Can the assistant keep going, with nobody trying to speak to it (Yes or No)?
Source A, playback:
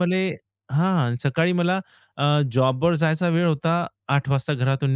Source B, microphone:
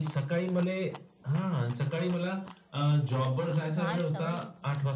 No